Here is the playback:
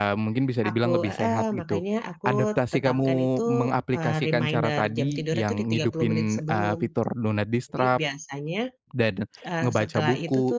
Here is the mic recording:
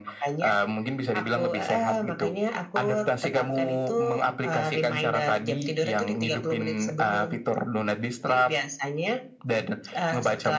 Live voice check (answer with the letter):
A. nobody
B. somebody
A